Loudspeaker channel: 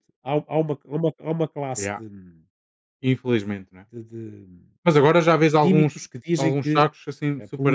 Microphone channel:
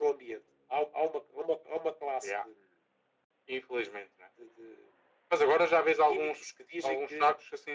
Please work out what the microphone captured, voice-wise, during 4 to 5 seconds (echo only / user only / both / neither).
echo only